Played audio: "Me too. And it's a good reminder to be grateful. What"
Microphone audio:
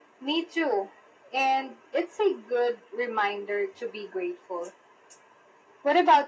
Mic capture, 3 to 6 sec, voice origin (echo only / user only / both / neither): echo only